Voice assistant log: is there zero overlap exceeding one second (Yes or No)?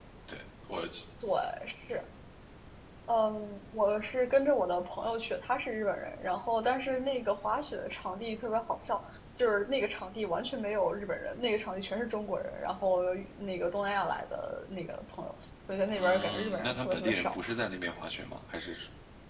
No